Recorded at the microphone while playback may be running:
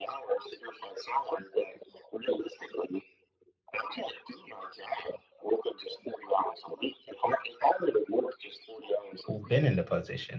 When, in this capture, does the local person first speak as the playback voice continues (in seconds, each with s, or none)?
9.2 s